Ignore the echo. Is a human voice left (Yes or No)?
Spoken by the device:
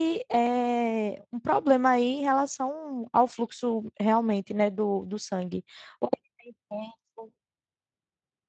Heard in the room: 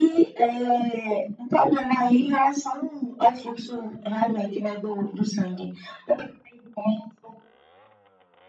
No